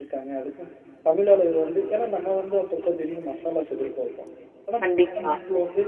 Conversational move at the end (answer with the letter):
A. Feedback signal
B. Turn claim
A